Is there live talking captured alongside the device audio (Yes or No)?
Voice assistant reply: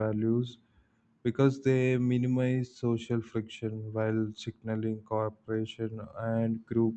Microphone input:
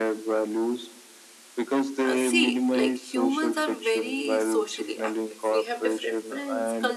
Yes